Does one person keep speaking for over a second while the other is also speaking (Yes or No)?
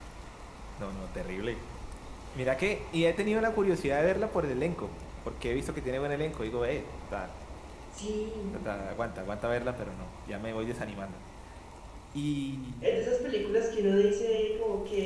No